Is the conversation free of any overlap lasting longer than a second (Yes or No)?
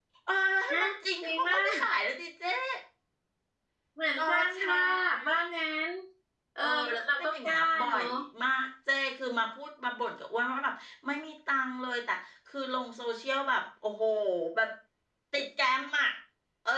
No